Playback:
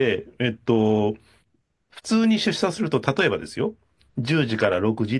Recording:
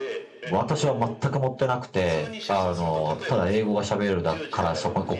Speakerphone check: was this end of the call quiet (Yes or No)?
No